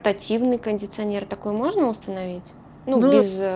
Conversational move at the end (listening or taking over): listening